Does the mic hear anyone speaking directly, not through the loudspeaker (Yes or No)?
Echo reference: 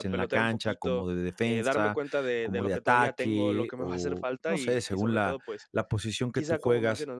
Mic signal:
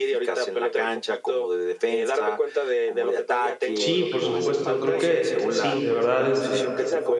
Yes